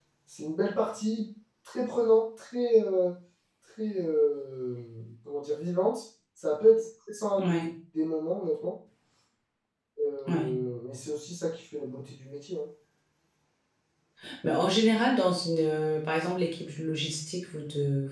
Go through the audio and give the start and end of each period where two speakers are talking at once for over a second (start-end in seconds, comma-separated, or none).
none